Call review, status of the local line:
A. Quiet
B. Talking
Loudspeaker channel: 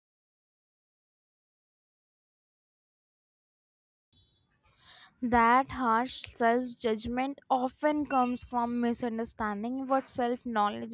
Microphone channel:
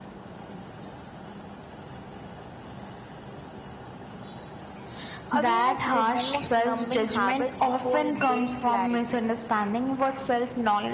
B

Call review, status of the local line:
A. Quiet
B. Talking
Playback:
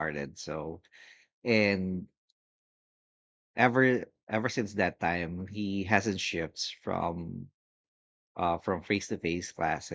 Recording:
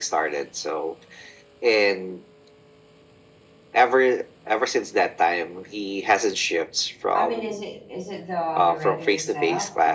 B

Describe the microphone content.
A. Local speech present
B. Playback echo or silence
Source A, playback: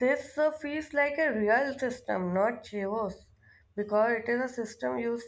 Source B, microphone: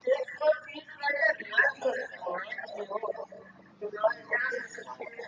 B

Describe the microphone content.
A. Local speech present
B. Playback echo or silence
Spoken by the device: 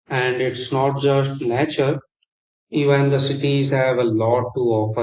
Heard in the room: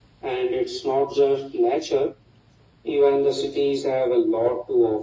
B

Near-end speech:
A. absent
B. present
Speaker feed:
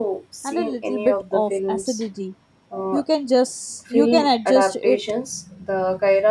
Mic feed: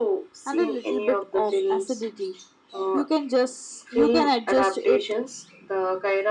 A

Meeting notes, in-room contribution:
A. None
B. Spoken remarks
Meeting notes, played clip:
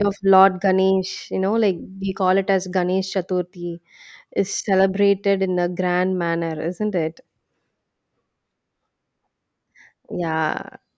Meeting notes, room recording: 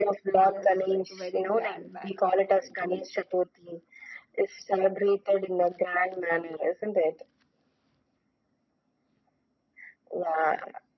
B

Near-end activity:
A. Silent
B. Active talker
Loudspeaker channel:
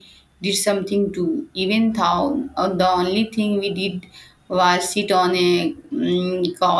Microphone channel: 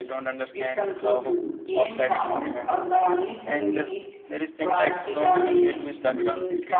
B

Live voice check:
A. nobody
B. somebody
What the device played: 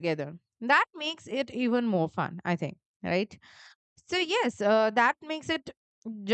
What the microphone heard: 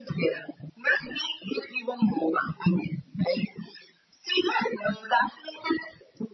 A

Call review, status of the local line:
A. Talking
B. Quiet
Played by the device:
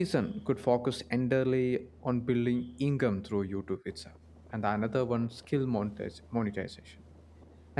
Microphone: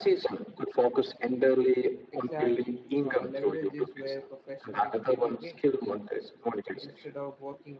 A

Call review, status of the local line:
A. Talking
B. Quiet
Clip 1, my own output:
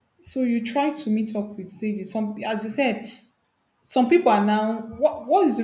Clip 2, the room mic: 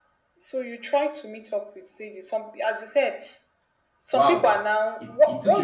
A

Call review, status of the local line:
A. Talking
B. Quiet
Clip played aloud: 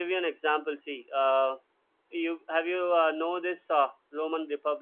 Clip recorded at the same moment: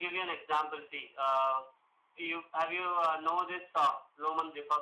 B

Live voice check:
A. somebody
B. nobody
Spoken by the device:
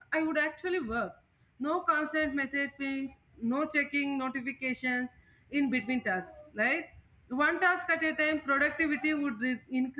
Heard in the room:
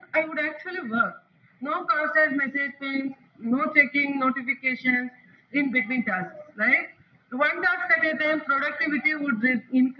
B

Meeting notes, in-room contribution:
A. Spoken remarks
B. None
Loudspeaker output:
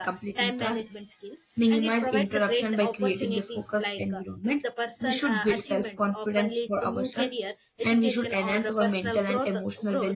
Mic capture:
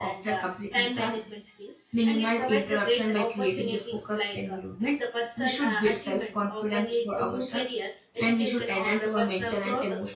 B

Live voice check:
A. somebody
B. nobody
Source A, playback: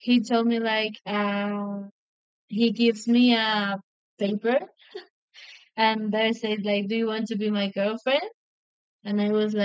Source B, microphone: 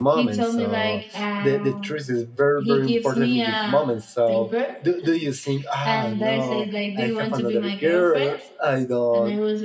A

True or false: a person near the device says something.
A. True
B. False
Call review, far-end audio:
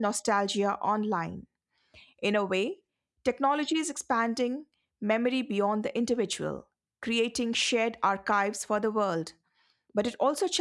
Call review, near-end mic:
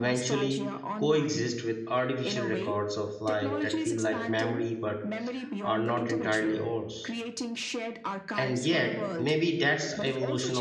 A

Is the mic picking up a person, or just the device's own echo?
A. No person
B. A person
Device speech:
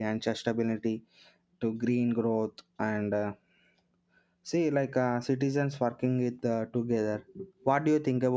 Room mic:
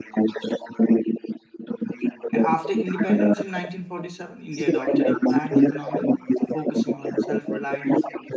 B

